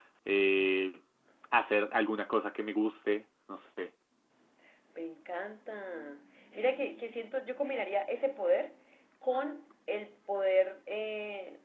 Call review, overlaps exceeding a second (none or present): none